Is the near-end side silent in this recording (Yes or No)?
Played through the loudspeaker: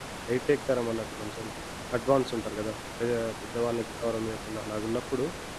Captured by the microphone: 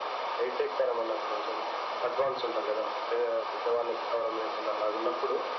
Yes